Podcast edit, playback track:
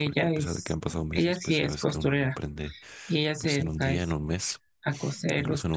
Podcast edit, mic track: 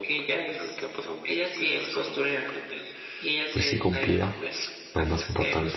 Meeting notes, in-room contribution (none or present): present